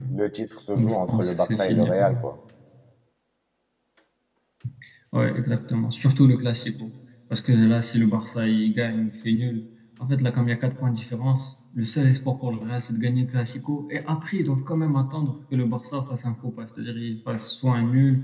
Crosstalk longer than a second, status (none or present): present